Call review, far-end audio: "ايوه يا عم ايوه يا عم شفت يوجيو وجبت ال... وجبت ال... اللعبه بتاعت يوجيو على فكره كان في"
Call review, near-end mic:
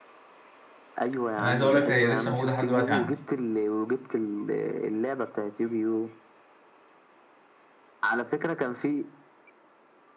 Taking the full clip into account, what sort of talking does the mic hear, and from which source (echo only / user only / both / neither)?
both